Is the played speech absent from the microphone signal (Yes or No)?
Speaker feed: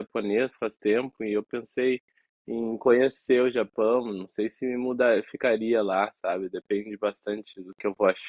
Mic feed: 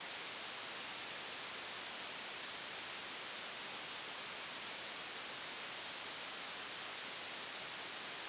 Yes